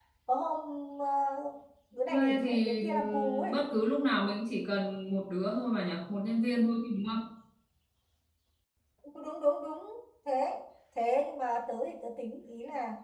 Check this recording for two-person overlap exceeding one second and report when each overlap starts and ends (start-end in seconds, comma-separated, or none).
2.1-3.5